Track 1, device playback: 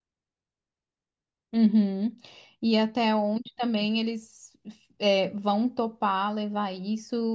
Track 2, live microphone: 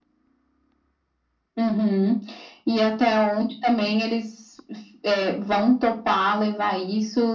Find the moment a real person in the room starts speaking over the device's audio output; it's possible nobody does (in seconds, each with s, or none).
none